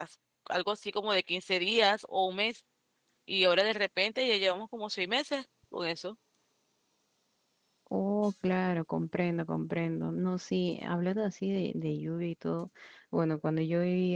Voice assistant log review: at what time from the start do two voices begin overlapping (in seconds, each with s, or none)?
none